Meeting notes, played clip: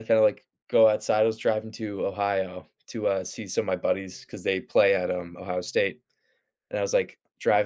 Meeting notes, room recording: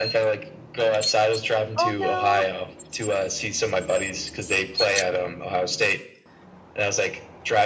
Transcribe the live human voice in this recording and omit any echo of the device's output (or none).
Oh, no!